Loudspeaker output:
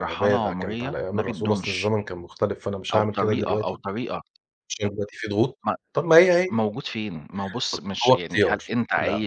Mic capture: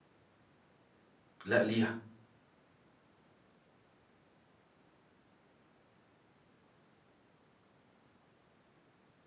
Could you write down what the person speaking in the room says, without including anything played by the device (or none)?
لأ ليها.